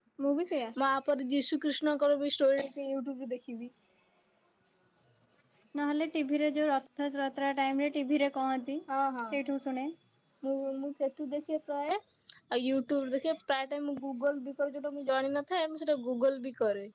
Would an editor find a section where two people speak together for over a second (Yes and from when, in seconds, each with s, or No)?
No